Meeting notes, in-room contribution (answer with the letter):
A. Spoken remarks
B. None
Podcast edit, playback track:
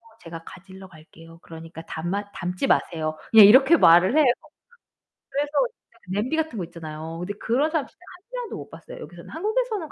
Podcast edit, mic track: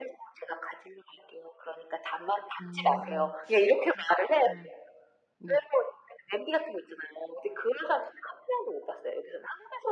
A